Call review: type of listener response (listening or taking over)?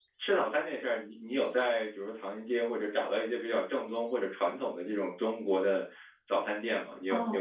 taking over